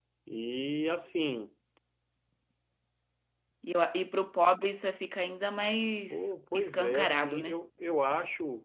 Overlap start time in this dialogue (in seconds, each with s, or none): 6.1 s